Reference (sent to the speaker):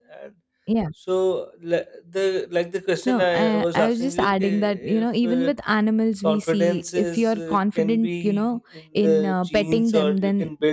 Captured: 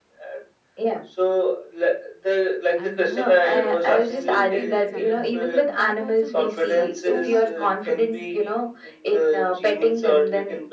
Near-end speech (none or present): present